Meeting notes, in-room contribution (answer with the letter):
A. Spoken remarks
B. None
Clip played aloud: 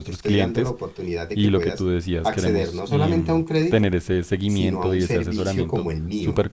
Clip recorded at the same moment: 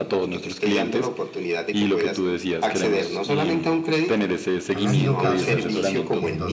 A